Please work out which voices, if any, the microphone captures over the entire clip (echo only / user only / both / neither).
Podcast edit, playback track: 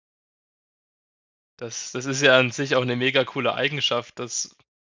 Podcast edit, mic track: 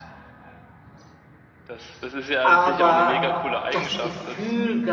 both